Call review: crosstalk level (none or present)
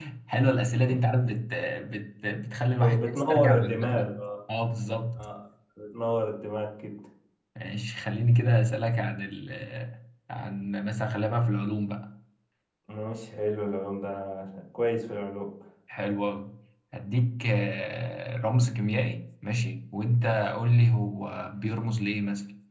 present